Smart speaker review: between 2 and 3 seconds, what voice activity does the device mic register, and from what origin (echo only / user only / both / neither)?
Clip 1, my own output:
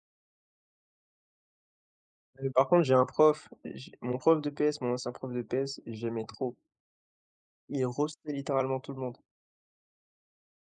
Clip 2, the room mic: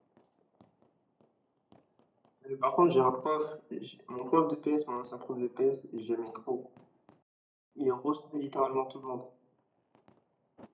echo only